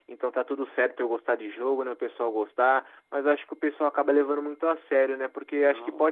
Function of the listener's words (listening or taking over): listening